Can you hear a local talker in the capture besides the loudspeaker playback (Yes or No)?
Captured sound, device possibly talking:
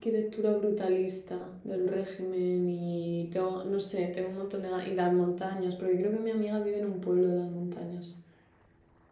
Yes